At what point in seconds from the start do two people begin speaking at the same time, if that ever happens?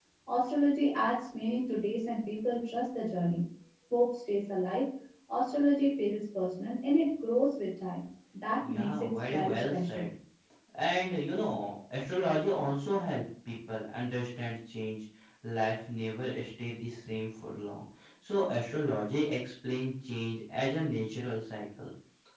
8.6 s

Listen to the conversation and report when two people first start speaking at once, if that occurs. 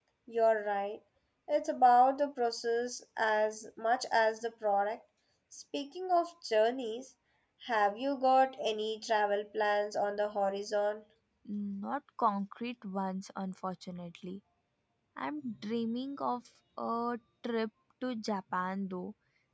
none

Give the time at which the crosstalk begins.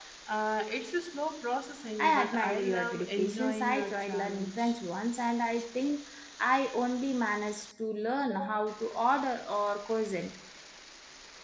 2.0 s

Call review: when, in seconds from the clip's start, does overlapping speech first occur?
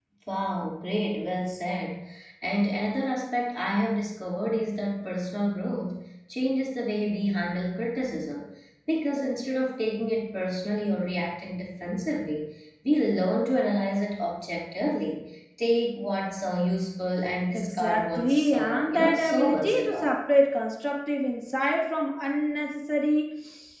17.5 s

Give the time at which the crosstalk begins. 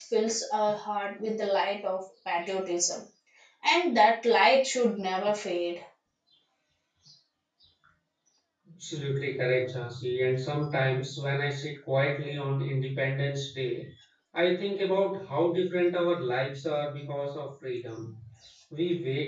none

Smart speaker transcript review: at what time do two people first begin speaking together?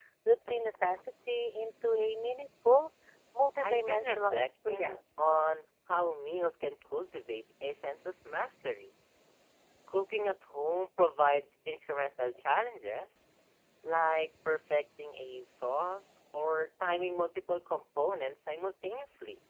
3.6 s

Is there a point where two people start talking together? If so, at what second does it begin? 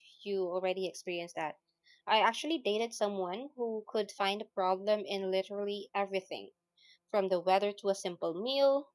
none

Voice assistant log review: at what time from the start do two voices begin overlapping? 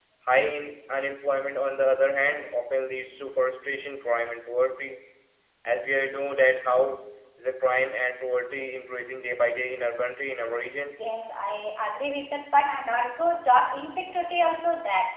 none

